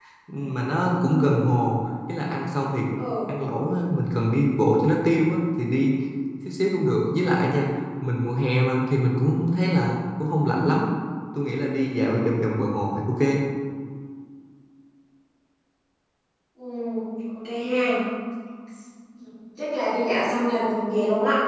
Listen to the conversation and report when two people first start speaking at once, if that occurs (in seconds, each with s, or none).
none